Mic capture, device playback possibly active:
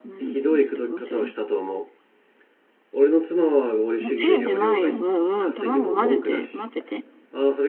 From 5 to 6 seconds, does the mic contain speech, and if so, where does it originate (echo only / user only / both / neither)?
both